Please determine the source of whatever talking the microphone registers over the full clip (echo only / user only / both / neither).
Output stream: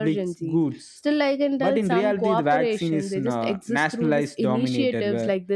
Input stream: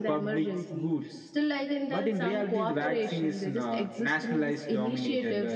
echo only